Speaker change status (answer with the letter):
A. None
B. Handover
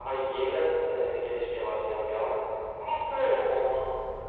A